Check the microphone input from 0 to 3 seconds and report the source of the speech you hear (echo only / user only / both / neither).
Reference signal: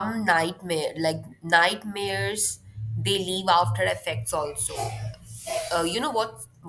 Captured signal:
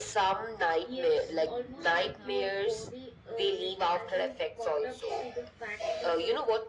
both